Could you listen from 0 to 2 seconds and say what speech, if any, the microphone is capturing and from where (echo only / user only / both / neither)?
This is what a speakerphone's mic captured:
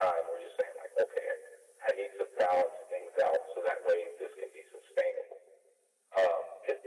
echo only